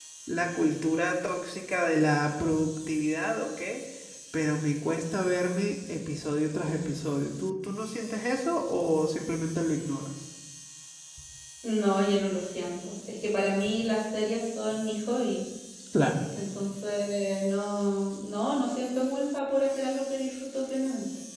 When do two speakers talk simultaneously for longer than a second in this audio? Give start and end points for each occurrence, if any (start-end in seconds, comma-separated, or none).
none